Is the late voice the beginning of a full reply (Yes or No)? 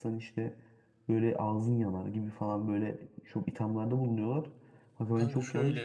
No